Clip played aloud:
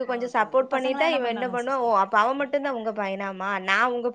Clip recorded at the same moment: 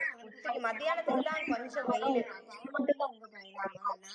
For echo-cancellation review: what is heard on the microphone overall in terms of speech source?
both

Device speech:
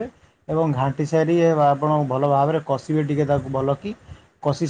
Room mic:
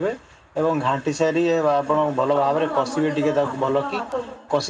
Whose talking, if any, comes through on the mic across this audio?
both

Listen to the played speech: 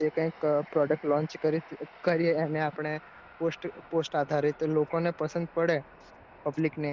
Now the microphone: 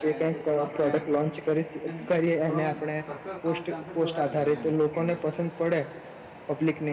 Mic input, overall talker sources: both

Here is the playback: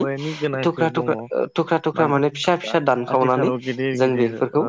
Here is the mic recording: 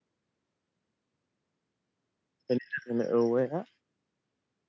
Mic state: user only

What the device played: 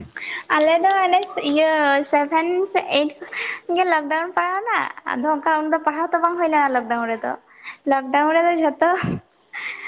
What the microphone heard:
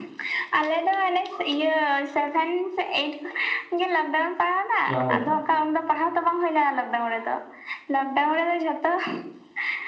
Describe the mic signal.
both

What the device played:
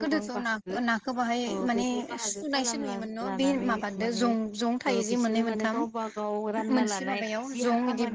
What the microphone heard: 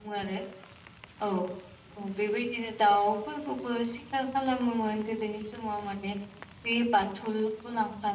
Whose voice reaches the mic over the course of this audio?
user only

